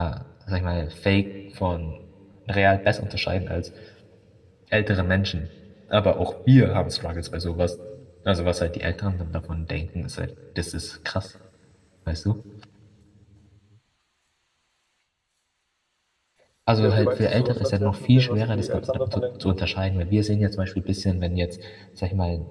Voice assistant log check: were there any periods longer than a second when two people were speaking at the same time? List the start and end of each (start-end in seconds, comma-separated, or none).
16.8-19.5